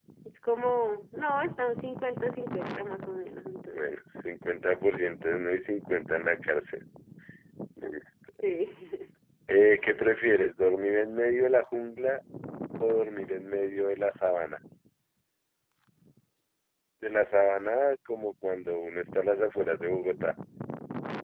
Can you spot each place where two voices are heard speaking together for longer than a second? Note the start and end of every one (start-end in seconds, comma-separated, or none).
none